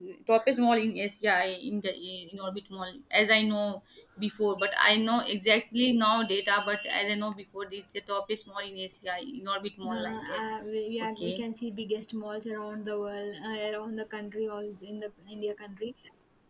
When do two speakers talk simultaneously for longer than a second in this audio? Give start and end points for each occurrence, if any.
none

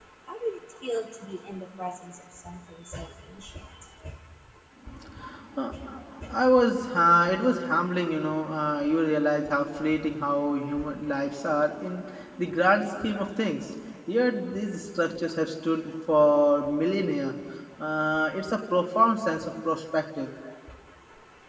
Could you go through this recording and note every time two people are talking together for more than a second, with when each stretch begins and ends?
none

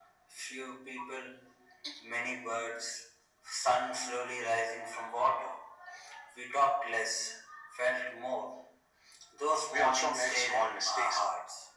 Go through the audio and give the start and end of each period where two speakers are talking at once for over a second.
9.7-11.2

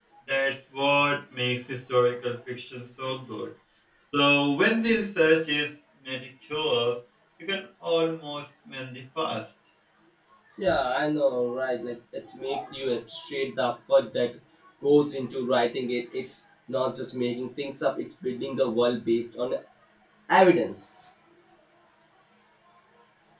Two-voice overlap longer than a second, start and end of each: none

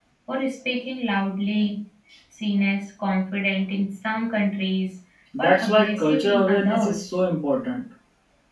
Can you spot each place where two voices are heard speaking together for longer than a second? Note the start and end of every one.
5.4-7.0

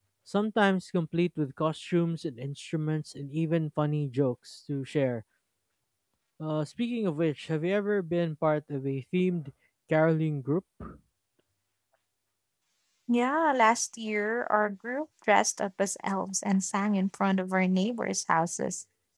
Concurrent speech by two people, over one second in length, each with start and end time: none

